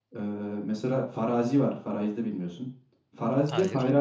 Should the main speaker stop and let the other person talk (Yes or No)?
No